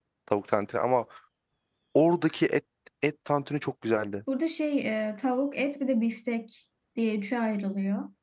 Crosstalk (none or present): none